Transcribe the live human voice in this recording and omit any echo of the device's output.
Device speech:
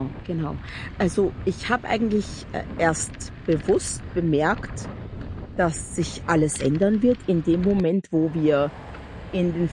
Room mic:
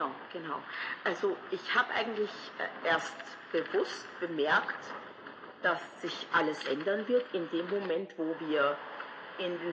none

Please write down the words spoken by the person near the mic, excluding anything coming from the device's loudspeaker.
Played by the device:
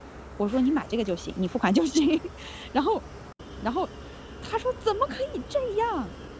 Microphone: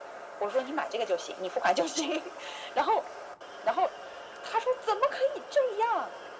none

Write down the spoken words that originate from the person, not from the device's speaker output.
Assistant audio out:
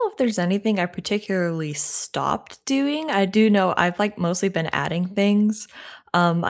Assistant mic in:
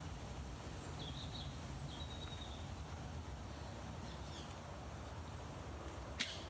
none

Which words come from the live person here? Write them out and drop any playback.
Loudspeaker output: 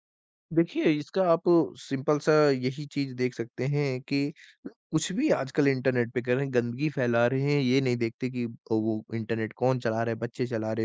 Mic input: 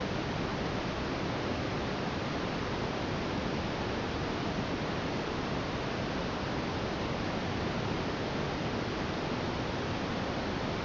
none

